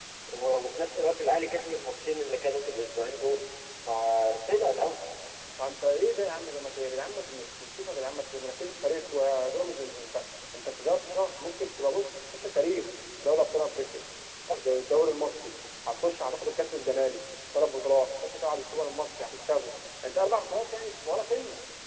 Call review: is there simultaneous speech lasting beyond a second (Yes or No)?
No